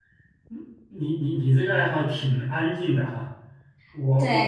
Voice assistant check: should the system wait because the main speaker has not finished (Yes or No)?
No